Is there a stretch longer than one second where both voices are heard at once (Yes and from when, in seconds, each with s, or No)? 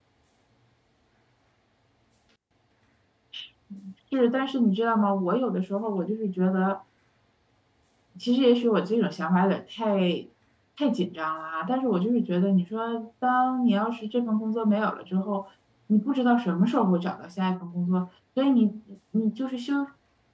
No